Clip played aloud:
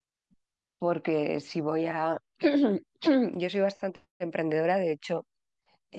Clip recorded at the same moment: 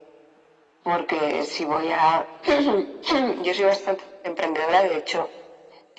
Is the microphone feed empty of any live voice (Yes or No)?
Yes